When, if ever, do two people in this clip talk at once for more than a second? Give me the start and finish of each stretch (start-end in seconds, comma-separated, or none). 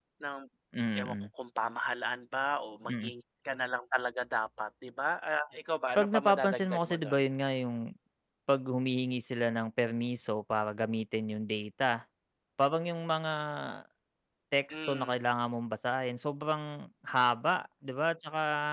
6.0-7.2